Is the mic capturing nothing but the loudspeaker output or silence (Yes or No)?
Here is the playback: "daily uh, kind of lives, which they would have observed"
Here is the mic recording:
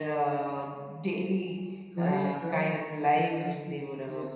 No